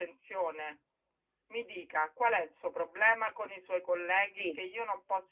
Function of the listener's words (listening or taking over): listening